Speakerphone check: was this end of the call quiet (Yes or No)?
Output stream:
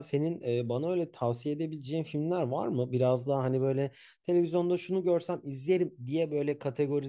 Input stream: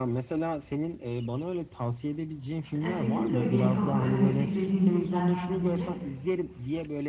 No